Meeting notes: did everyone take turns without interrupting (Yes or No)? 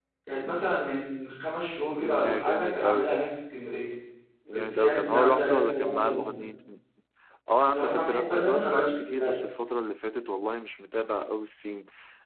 No